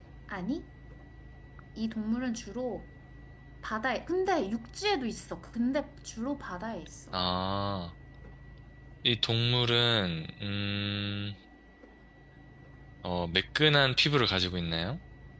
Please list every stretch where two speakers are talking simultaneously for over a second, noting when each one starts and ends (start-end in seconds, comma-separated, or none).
none